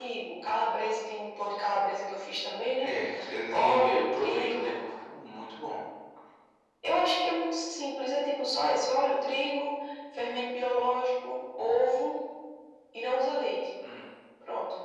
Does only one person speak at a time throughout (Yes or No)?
No